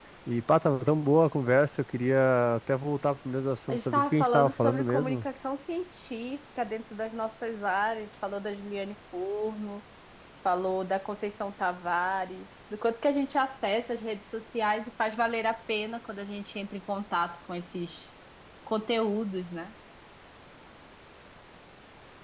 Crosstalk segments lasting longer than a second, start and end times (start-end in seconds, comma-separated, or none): 3.7-5.2